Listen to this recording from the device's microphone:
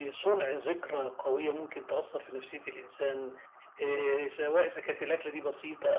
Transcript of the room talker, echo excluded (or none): none